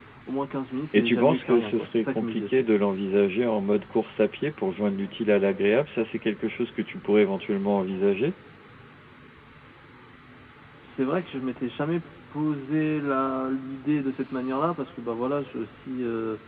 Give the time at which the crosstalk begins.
1 s

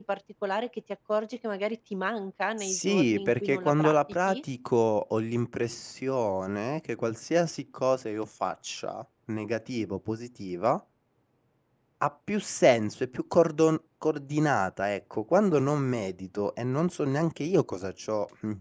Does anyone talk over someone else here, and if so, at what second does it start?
3 s

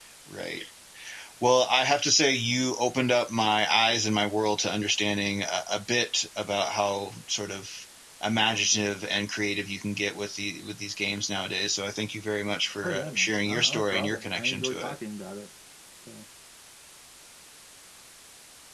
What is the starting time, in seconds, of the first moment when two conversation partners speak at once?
13 s

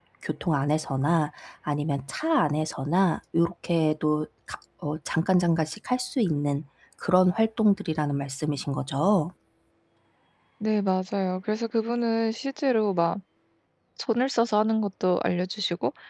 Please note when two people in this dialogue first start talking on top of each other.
none

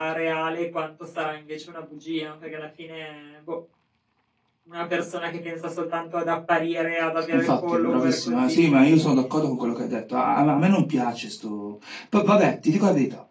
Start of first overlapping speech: 7 s

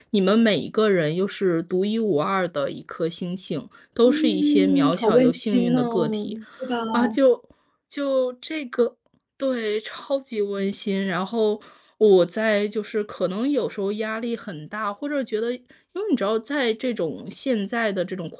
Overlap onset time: 4 s

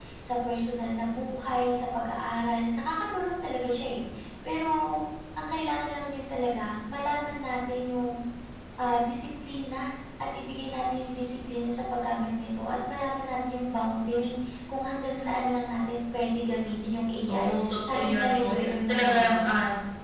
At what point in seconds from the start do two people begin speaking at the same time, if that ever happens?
17 s

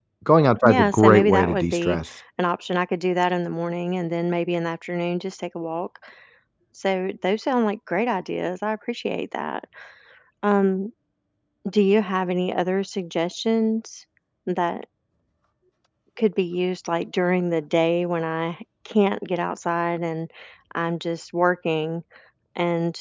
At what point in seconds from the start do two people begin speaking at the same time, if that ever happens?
1 s

